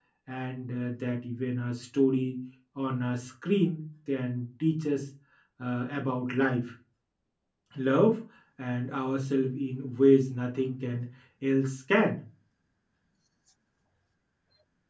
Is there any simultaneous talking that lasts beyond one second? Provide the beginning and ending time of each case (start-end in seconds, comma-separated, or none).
none